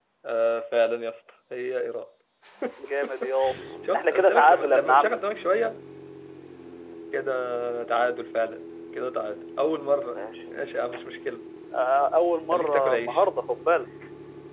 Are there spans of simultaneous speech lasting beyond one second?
Yes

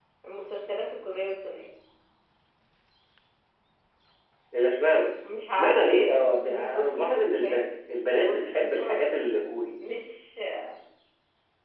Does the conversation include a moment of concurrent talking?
Yes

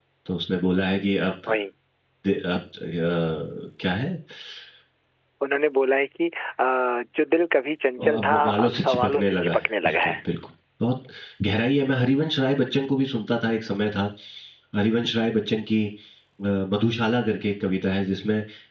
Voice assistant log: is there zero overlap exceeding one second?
No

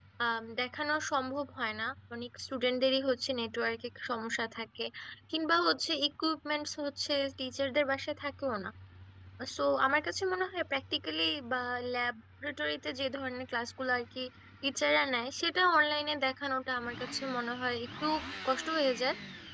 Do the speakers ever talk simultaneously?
No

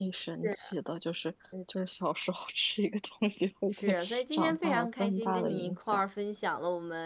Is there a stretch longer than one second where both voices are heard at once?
Yes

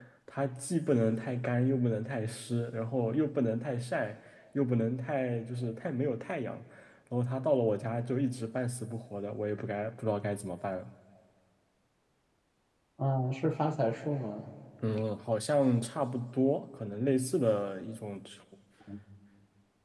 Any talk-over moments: No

